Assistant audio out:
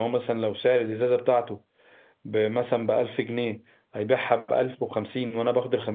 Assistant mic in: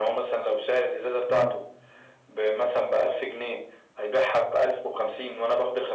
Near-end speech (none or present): present